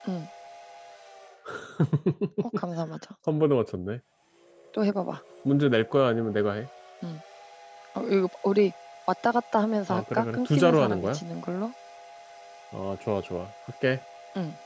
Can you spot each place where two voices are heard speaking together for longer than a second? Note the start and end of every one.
9.9-11.2

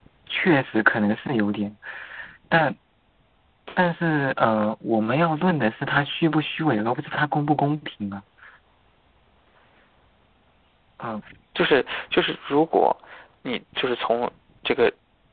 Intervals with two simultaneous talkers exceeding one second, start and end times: none

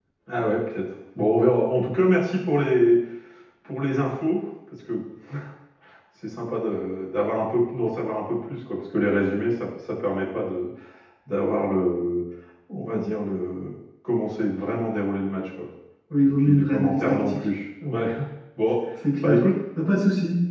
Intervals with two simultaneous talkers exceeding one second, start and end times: 16.2-17.4

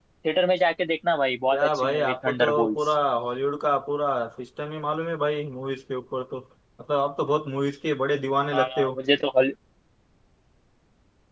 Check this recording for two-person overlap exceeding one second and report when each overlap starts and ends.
1.5-2.8

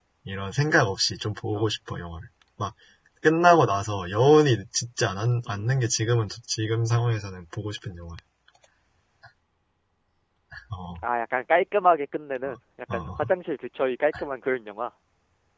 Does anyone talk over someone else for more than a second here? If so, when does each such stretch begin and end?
none

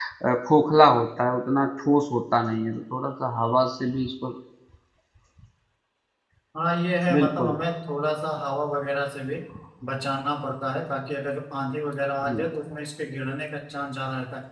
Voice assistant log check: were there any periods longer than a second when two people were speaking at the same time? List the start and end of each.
none

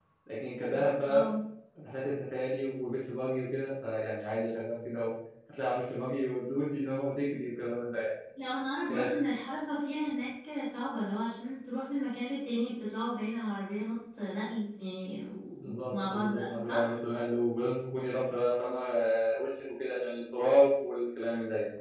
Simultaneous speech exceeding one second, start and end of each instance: 15.6-17.0

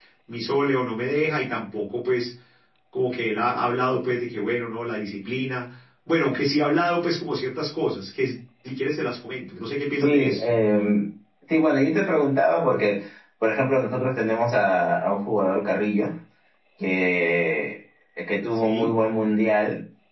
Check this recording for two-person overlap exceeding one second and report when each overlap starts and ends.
none

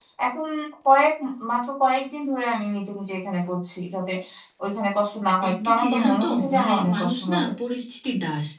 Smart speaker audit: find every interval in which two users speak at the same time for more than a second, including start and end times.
5.5-7.5

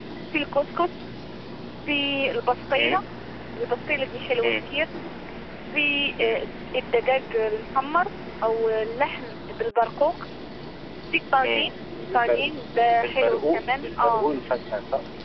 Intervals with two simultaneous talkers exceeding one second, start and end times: 13.0-14.2

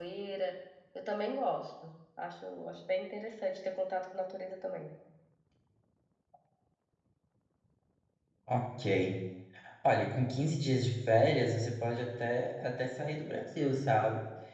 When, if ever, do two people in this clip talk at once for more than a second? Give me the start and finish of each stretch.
none

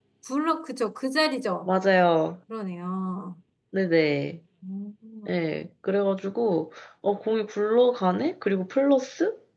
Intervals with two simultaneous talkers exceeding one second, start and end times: none

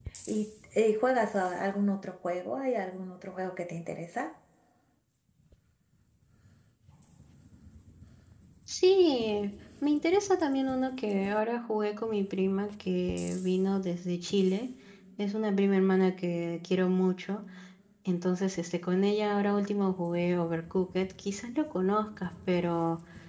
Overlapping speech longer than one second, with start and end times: none

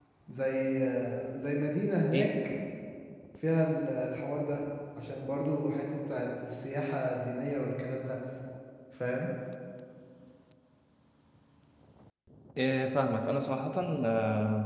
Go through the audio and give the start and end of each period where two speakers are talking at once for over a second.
none

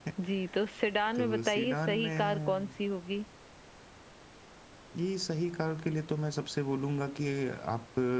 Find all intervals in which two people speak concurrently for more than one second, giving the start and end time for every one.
1.1-2.7

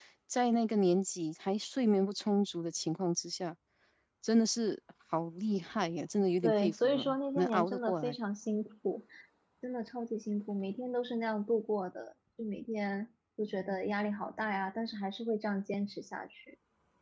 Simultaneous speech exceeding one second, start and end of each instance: 6.4-8.2

